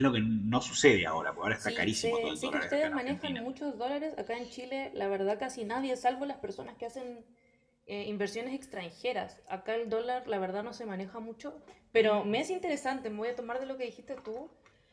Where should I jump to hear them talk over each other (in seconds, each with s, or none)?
1.6 s